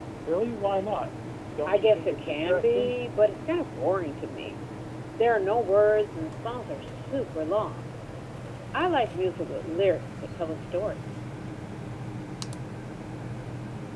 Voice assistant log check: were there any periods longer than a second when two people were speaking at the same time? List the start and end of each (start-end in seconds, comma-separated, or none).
1.7-2.9